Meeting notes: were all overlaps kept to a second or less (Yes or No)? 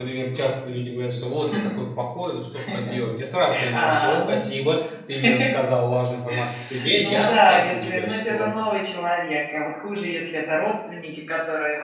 No